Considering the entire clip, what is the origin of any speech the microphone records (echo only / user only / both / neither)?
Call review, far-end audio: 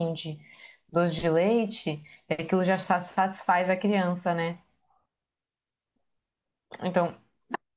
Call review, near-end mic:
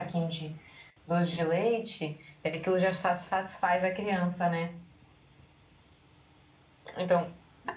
echo only